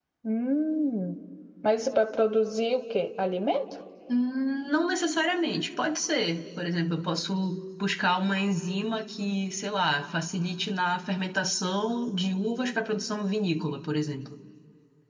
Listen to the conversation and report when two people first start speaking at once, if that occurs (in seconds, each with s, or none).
none